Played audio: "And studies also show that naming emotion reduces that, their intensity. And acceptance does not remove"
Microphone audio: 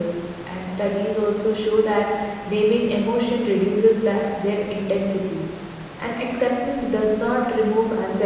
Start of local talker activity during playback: none

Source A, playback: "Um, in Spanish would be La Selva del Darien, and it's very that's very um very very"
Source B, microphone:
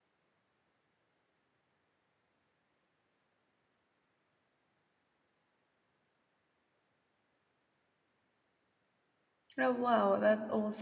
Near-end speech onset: 9.6 s

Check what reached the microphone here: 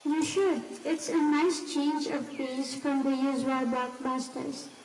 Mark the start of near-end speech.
none

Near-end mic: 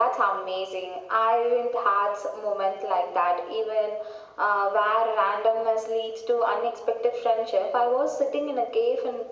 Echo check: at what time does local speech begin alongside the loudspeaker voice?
none

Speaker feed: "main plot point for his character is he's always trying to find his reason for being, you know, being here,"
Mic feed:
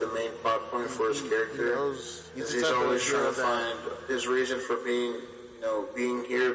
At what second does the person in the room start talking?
0.8 s

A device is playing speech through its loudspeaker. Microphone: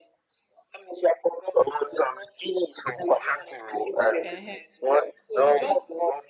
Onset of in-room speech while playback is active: 4.2 s

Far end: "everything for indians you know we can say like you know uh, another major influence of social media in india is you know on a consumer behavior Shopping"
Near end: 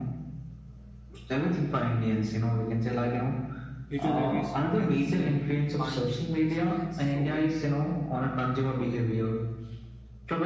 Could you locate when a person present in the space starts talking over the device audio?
3.9 s

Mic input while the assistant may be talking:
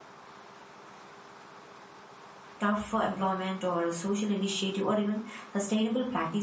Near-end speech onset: 2.6 s

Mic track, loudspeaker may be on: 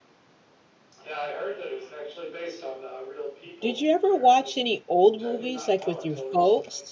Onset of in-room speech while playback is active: 3.6 s

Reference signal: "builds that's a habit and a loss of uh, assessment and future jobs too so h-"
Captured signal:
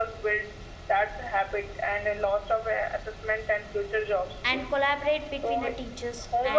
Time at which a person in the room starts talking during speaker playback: 4.4 s

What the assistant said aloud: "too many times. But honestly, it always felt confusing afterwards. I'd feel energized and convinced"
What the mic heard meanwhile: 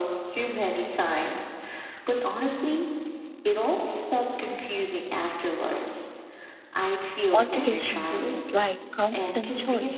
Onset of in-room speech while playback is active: 7.3 s

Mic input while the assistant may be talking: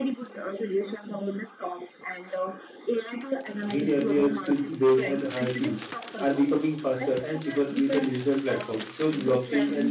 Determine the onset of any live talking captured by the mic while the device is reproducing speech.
3.6 s

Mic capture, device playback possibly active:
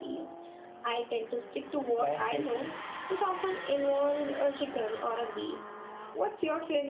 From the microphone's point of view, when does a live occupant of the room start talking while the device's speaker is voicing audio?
1.9 s

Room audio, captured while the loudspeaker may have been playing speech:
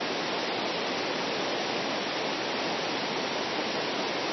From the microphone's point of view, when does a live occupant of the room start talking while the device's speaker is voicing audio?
none

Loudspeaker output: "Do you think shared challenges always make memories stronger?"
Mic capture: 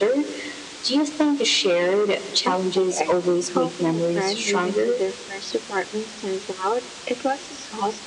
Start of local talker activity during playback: 2.4 s

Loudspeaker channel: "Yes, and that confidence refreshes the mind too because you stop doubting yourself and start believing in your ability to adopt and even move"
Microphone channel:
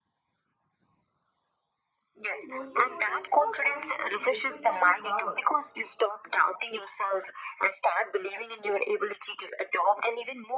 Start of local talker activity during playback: 2.3 s

